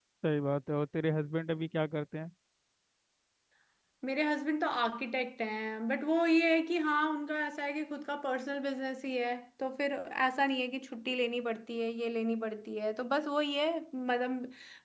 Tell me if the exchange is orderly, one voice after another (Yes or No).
Yes